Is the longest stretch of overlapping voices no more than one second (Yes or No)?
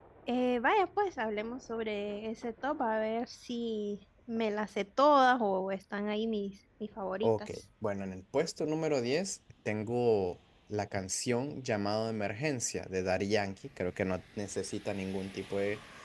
Yes